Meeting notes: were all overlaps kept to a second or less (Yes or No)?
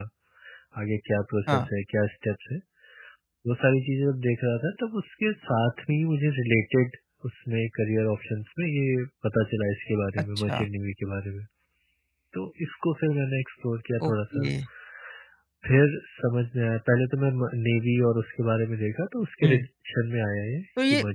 Yes